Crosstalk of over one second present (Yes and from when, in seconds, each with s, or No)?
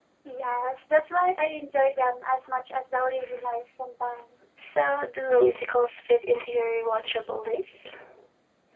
No